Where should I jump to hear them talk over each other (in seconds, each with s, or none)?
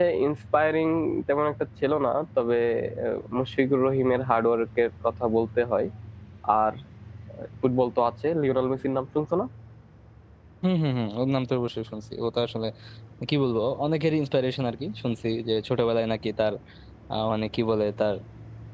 none